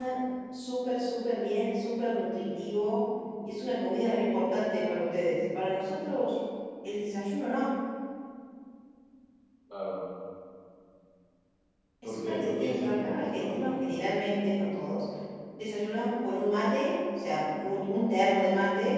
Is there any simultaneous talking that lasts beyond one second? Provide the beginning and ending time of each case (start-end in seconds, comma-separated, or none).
12.0-13.8